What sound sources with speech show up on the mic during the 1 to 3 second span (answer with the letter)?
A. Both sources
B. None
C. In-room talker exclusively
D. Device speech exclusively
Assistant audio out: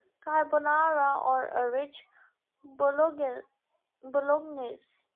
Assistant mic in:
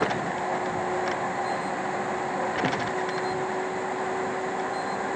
B